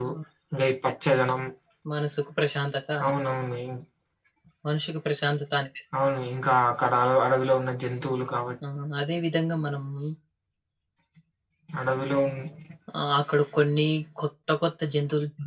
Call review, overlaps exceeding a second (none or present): none